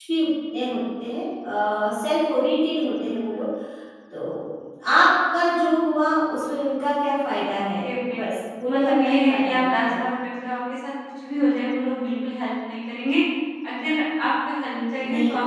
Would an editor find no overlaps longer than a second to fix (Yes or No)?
No